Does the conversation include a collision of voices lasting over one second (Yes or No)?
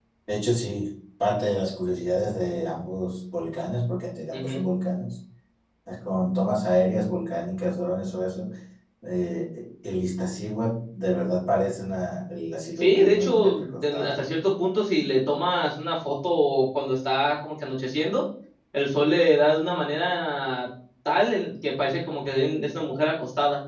Yes